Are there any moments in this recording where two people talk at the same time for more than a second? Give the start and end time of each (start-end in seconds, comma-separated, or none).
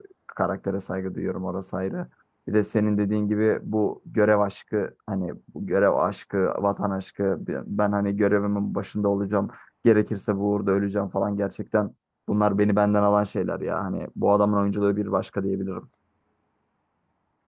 none